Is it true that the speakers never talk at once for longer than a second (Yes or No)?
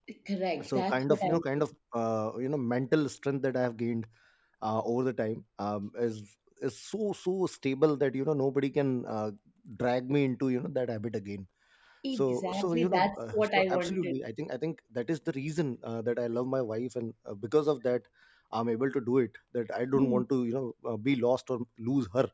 No